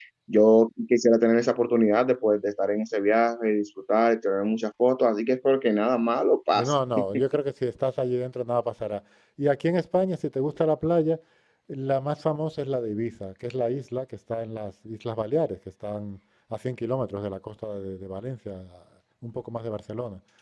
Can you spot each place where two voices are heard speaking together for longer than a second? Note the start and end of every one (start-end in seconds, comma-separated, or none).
none